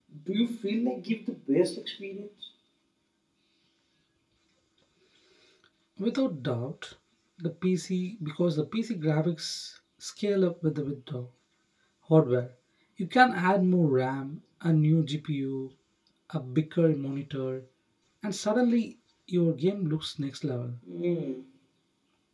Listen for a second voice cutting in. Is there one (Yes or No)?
No